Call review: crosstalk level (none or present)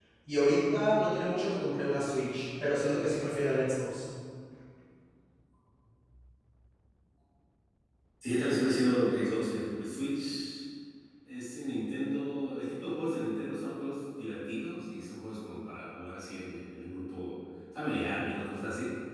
none